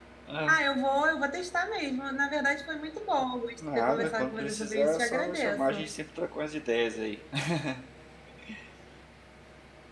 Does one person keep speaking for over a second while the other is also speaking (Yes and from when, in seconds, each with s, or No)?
Yes, from 3.6 s